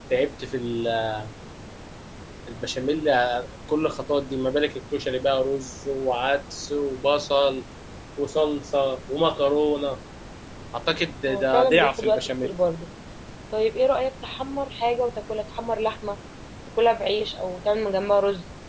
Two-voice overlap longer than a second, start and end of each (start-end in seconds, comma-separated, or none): 11.3-12.6